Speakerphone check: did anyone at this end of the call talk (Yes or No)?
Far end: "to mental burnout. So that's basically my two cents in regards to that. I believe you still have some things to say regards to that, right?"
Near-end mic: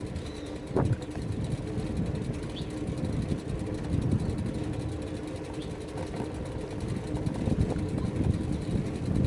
No